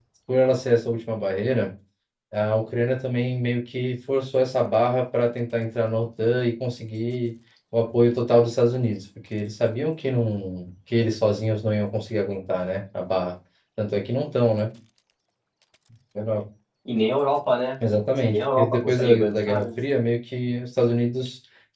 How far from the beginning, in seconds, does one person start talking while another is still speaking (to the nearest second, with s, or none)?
18 s